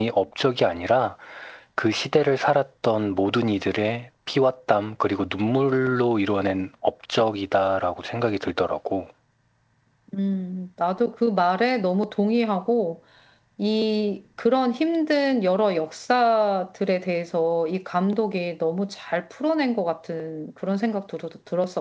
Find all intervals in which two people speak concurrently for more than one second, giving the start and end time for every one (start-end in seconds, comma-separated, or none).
none